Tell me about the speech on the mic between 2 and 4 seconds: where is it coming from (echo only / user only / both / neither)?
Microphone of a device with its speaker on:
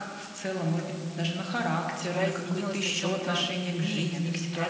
both